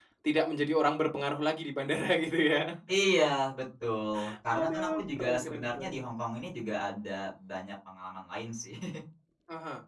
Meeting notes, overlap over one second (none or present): present